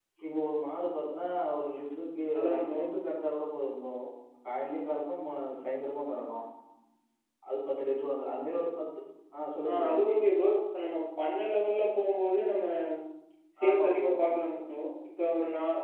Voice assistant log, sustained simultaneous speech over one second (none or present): none